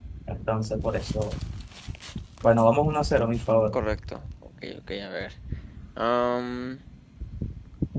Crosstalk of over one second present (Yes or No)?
No